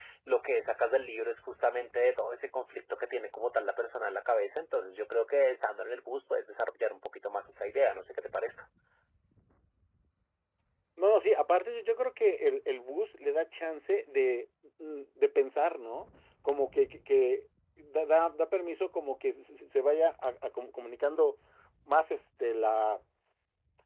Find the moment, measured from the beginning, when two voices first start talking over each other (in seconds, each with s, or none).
none